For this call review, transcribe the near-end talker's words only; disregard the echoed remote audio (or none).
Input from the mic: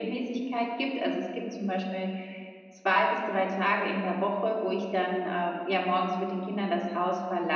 none